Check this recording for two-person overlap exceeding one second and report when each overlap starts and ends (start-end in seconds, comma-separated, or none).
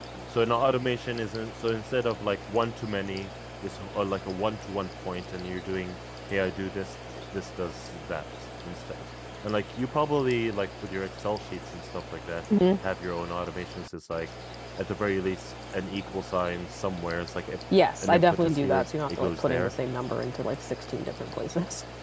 18.0-19.7